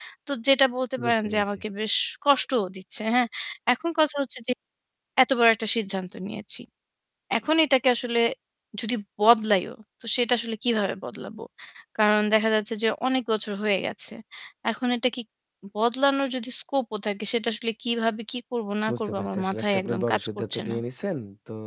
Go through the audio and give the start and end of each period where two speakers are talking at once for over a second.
18.9-20.8

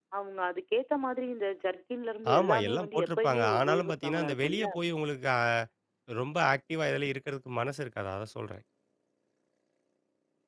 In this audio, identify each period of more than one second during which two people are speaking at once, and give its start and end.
2.4-4.7

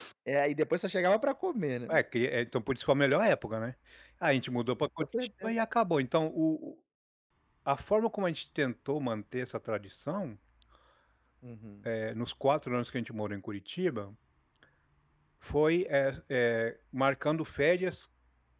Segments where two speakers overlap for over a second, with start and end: none

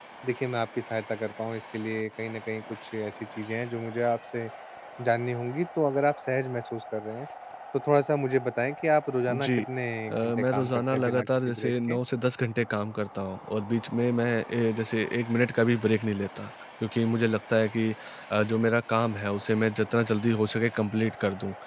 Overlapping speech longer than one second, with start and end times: 10.1-12.0

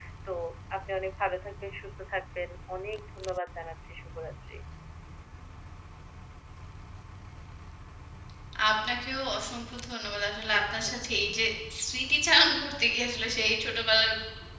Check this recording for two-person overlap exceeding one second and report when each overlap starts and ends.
none

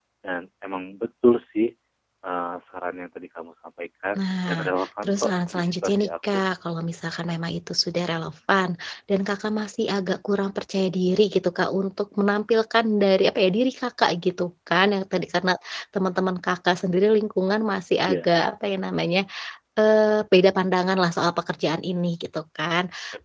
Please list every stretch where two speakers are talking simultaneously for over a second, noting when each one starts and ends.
4.2-6.4

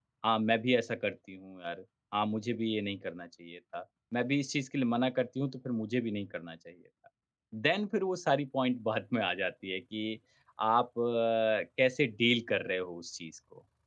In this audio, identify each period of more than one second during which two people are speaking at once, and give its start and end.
none

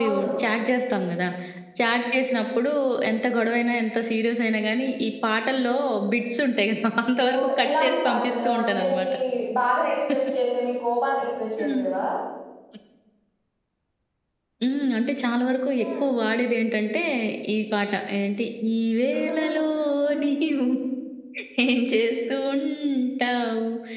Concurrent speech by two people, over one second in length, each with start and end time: 7.4-9.1

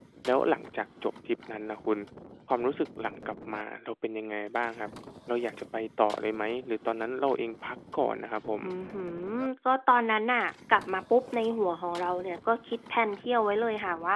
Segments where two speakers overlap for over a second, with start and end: none

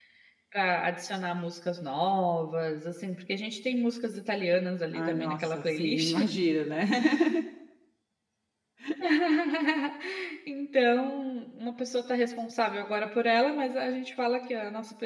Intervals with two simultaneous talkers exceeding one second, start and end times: 4.9-6.2

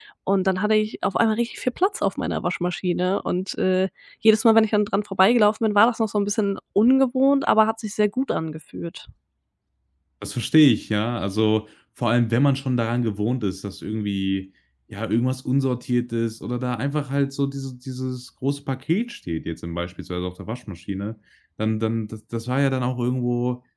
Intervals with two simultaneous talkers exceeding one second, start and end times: none

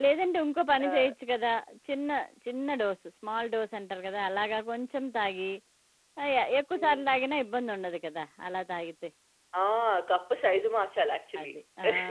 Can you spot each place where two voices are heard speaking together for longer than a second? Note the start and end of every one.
none

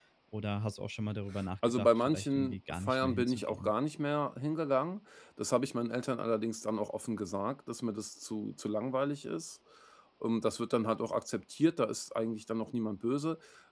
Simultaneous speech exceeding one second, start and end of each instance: 1.6-3.7

